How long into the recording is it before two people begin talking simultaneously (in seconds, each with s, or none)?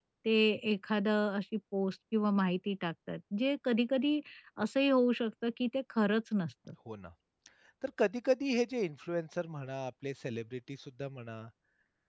none